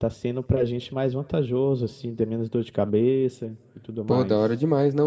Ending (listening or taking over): taking over